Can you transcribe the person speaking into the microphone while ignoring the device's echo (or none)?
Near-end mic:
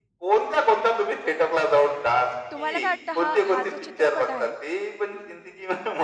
तुम्हाला काय वाटतं हा हा जो चित्रपट आहे,